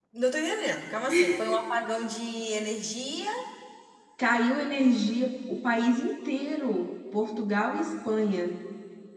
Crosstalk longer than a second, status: none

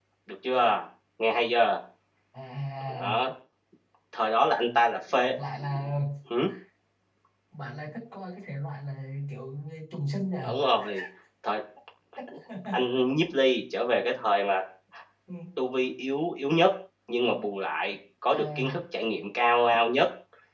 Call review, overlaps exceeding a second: none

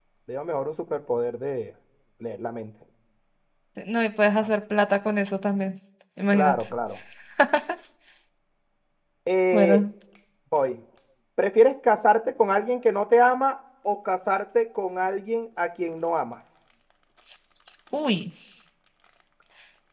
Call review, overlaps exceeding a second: none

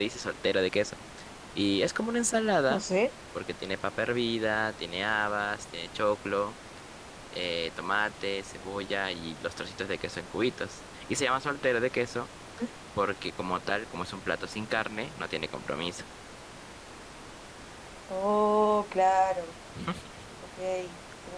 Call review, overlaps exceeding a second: none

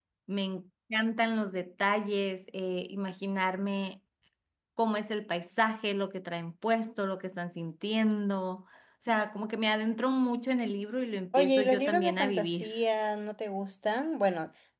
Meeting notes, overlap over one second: present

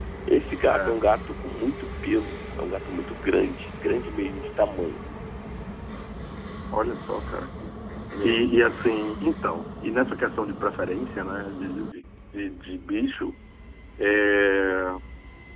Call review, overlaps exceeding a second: none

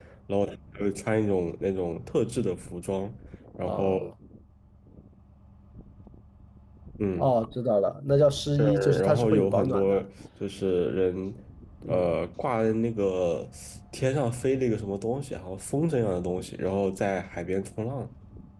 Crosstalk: present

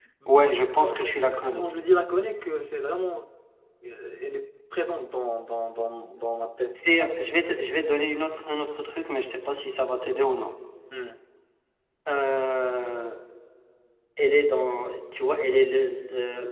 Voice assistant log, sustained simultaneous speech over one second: none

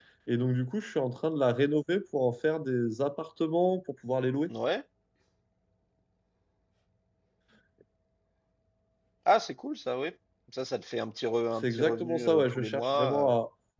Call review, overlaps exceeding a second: present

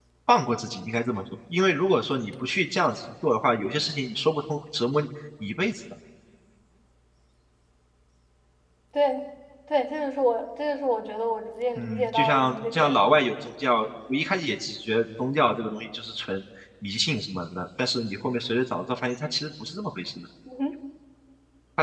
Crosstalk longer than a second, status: present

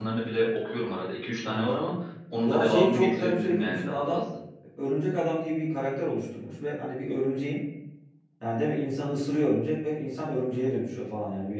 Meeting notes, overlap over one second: present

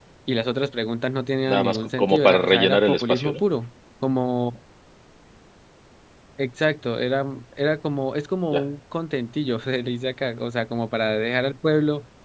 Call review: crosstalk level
present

